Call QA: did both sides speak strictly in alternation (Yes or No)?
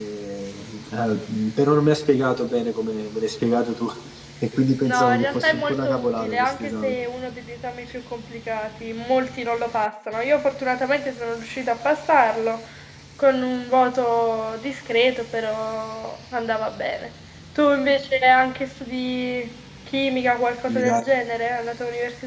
No